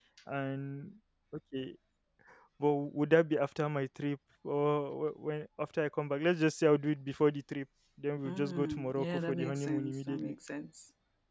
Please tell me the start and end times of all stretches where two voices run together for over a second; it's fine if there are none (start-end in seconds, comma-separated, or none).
8.2-10.3